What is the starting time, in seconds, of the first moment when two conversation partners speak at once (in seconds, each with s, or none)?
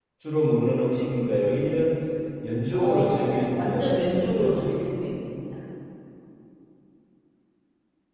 2.7 s